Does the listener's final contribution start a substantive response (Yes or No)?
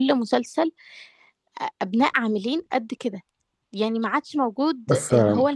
No